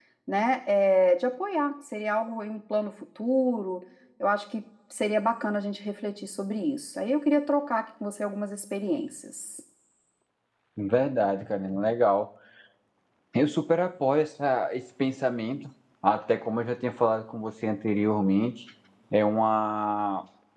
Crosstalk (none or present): none